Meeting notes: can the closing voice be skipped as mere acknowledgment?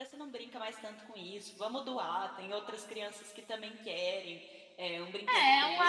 No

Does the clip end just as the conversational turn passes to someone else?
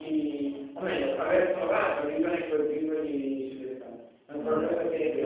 Yes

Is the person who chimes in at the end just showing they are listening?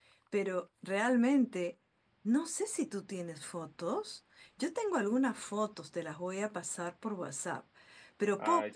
Yes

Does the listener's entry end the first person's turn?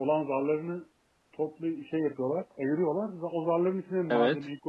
No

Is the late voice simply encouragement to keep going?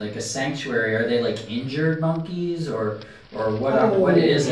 No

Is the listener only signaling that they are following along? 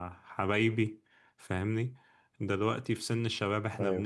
Yes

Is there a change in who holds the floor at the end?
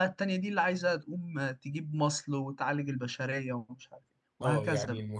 Yes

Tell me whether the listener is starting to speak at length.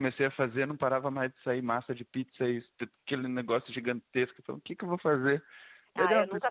Yes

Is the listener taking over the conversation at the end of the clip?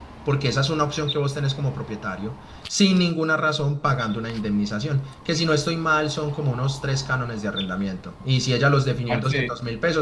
No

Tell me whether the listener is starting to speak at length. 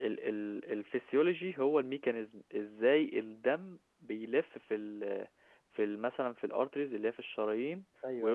No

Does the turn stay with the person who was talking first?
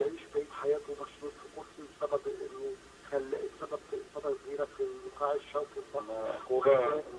No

